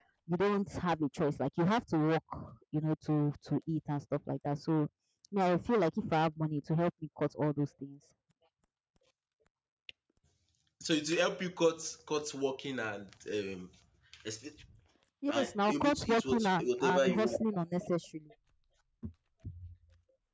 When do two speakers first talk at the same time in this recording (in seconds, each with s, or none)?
15.3 s